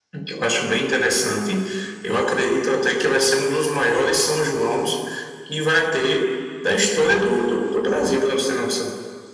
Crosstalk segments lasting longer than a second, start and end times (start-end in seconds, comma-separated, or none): none